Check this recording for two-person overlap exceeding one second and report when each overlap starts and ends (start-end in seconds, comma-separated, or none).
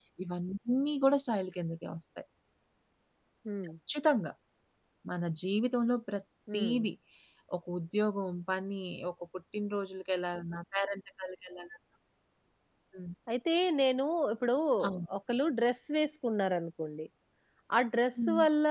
none